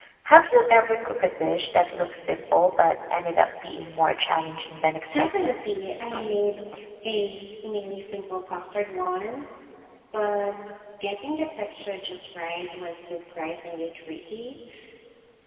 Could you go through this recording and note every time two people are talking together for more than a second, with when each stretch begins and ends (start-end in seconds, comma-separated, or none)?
none